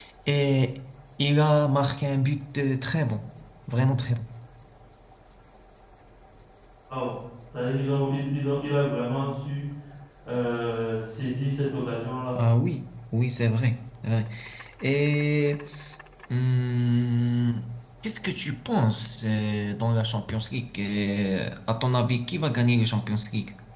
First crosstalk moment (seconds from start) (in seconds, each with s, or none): none